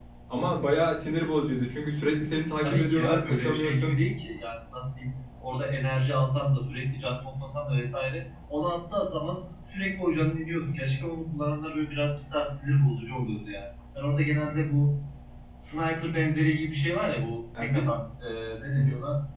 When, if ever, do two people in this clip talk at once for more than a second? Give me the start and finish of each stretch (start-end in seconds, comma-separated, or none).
2.6-4.0